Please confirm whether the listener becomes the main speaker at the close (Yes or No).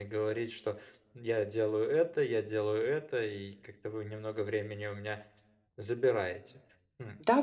Yes